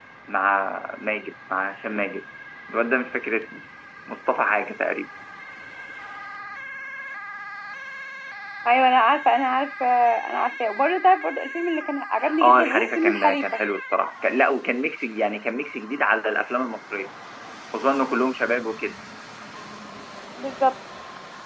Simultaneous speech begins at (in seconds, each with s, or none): 12.2 s